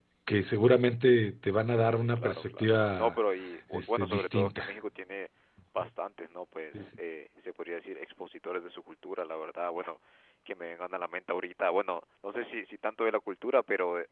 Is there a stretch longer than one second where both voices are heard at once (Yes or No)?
Yes